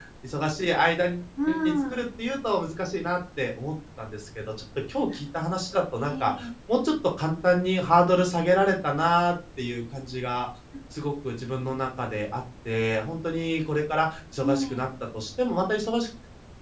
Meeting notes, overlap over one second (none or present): none